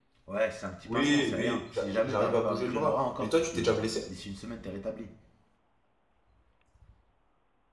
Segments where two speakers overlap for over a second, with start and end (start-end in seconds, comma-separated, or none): 0.9-3.8